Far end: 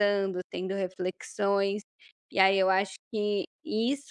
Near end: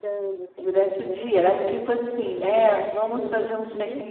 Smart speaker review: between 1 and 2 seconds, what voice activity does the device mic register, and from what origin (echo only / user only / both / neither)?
both